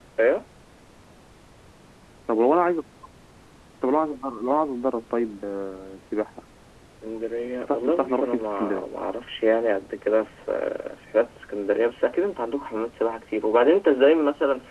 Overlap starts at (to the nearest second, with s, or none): 8 s